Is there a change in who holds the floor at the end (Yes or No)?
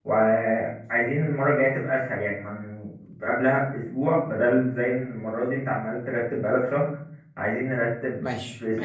Yes